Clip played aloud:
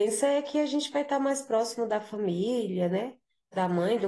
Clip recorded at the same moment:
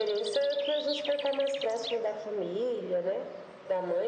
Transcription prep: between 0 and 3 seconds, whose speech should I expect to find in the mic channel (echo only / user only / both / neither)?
echo only